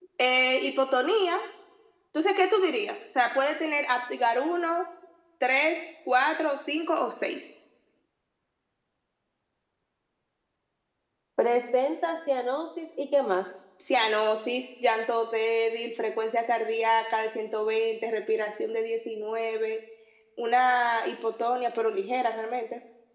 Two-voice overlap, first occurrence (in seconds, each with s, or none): none